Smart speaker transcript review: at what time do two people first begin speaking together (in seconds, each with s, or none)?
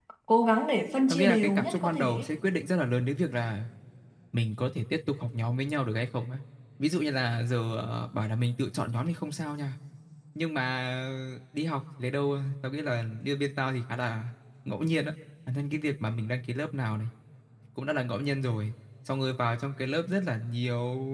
1.1 s